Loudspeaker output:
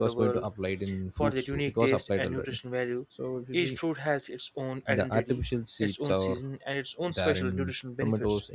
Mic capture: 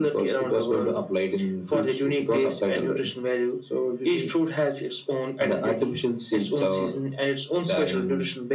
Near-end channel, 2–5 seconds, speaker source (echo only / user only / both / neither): echo only